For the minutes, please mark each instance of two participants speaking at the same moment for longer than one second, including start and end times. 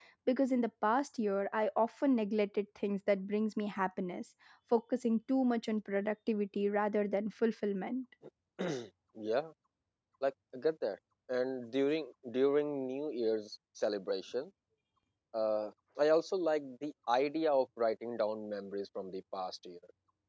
none

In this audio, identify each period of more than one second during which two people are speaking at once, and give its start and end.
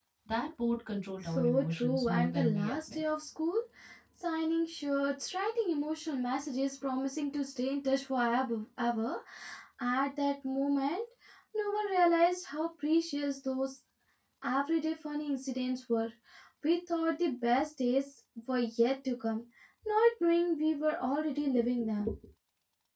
1.2-3.0

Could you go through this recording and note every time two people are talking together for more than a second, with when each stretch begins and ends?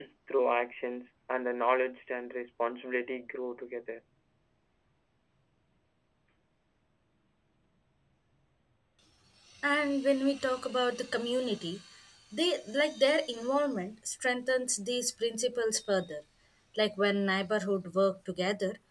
none

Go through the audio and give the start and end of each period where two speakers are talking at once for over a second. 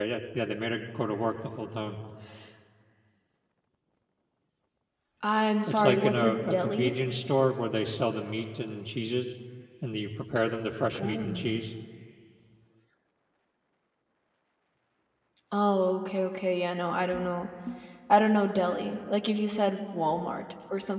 5.7-6.9

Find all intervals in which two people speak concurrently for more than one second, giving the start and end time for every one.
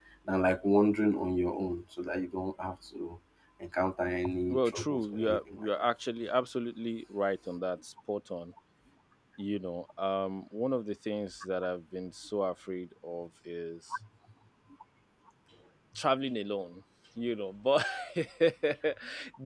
4.5-5.9

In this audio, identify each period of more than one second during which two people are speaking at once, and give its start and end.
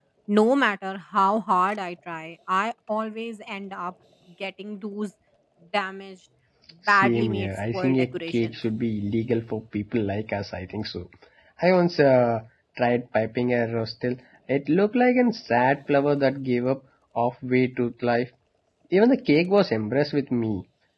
6.9-8.5

